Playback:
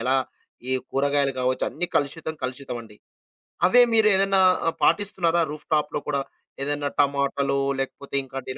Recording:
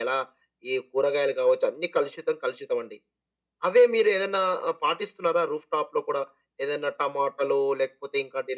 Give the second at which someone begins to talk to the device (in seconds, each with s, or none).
none